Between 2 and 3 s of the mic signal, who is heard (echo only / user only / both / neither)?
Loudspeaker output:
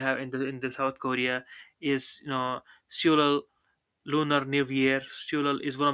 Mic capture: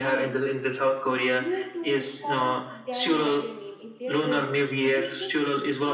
both